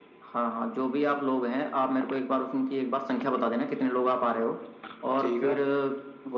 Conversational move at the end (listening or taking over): listening